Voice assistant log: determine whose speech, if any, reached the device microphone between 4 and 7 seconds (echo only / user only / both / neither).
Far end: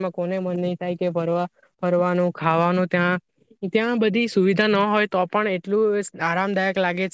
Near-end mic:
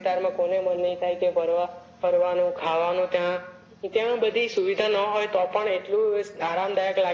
echo only